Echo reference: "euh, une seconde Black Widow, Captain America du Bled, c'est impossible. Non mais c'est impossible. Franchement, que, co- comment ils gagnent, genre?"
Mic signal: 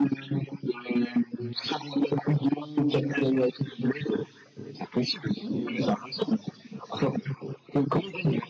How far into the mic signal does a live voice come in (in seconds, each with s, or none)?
5.4 s